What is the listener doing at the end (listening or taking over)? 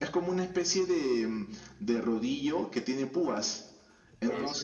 listening